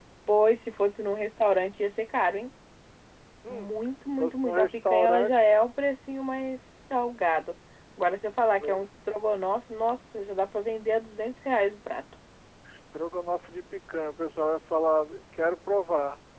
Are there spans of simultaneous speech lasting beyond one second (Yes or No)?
Yes